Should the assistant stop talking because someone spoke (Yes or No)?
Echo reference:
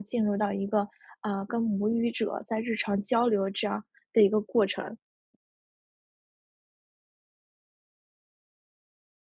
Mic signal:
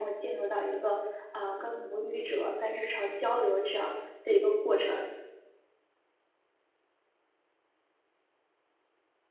Yes